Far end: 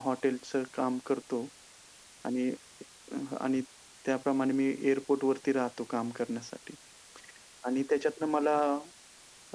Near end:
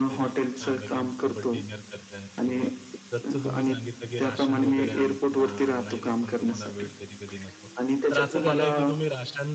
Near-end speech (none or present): present